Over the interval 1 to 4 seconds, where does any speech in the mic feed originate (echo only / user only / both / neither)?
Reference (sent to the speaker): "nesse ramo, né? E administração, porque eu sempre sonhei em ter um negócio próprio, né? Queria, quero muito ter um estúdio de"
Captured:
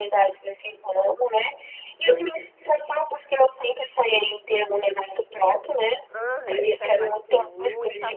echo only